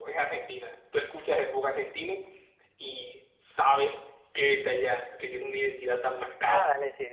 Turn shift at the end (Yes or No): Yes